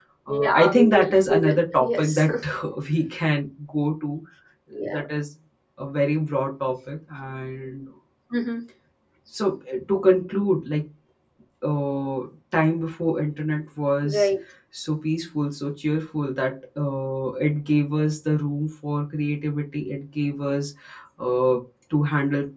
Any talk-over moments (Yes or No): Yes